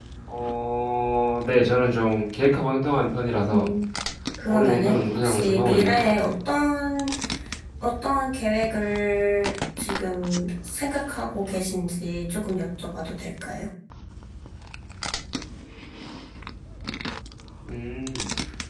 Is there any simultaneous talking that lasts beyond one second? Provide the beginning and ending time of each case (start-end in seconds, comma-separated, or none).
4.5-6.3